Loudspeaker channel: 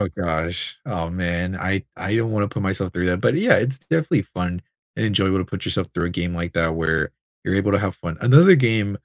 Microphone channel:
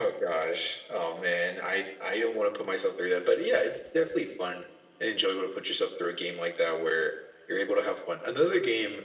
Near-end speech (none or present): none